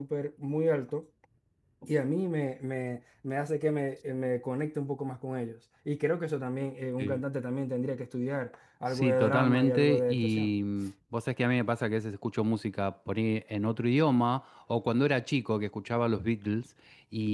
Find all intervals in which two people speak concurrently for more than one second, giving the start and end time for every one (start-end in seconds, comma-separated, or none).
8.9-10.5